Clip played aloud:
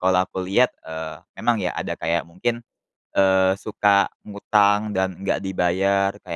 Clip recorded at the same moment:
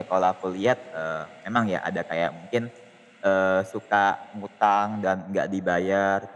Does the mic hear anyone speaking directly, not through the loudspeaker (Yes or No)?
No